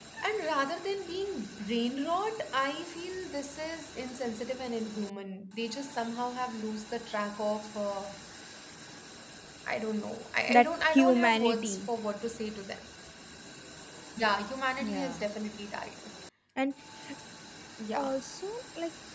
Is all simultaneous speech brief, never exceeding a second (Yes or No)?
No